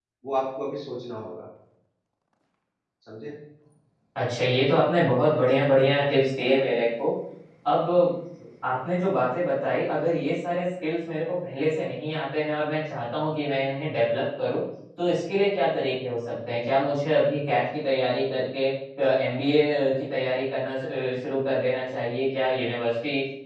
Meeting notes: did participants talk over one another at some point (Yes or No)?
No